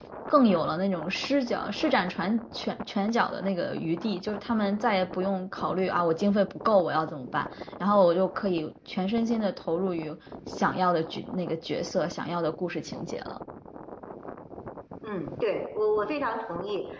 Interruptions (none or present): none